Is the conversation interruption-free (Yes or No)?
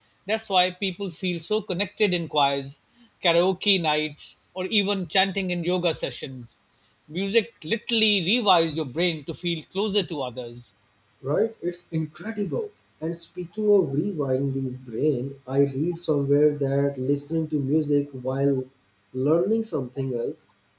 Yes